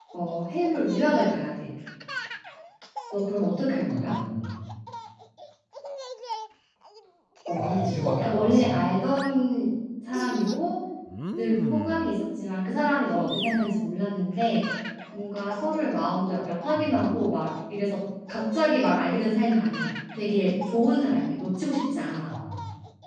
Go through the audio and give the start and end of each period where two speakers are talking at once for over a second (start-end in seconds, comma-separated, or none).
7.6-8.8